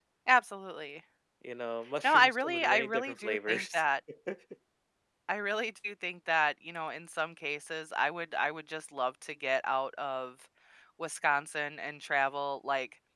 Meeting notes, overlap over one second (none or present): present